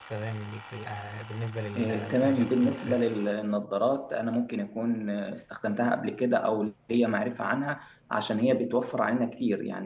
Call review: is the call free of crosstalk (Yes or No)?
No